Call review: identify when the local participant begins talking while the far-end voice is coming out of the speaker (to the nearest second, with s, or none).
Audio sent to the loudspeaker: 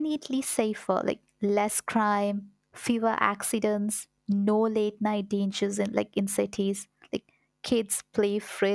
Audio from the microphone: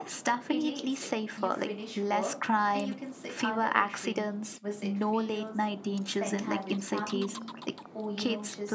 0 s